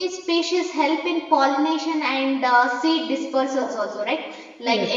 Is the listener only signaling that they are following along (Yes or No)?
Yes